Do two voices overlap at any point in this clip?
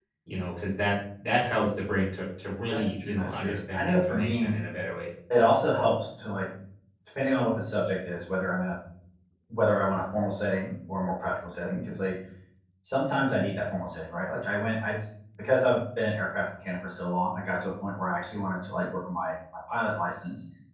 Yes, from 2.7 s

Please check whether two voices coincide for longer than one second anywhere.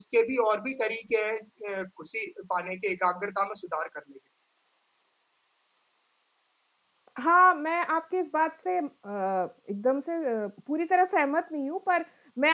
No

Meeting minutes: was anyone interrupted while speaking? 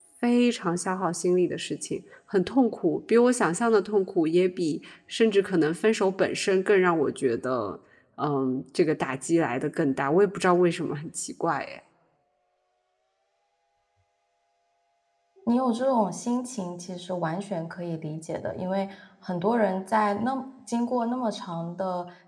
No

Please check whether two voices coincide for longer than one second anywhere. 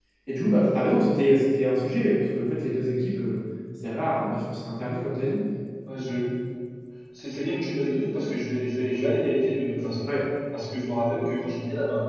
No

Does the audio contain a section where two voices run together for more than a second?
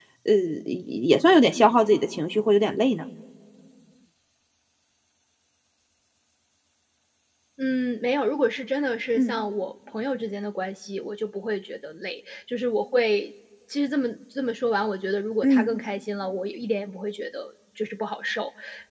No

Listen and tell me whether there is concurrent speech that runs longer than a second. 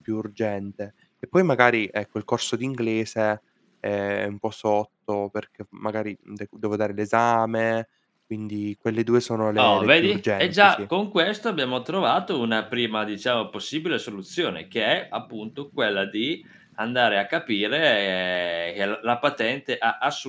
Yes, from 9.6 s

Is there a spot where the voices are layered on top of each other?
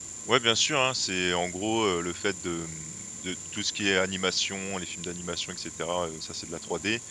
No

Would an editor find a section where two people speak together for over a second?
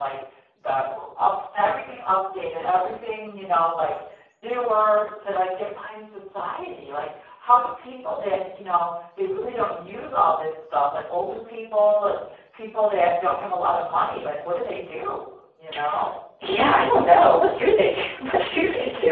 No

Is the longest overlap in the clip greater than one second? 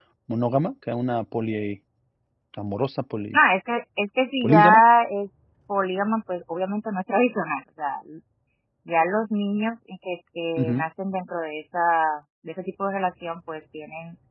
No

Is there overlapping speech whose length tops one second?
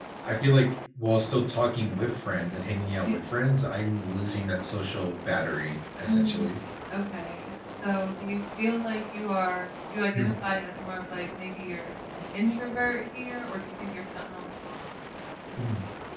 No

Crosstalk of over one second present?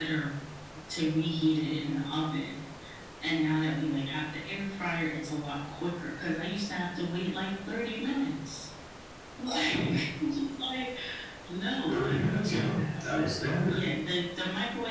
Yes, from 11.9 s

